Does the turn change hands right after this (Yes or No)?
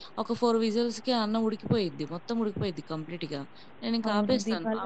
Yes